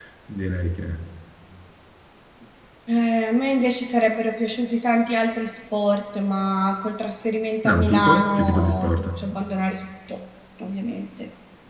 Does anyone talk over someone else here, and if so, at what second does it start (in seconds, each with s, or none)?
7.6 s